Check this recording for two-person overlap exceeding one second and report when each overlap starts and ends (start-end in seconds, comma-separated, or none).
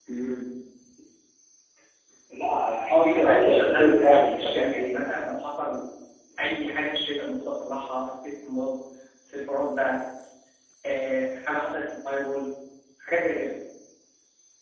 2.9-5.2